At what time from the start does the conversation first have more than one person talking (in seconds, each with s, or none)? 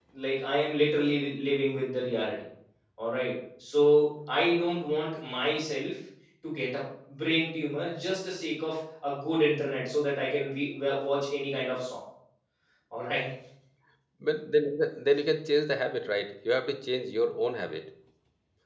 none